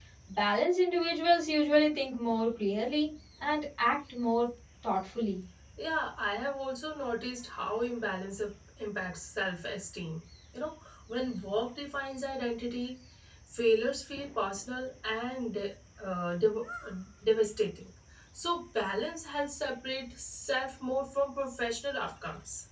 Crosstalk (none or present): none